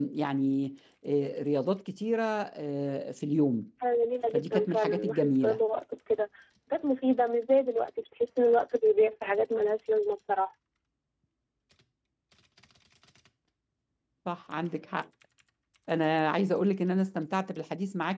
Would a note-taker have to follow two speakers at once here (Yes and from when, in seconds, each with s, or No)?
Yes, from 4.3 s